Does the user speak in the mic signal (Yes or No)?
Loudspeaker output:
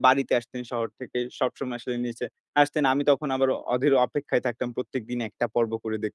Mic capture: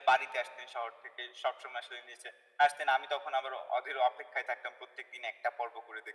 No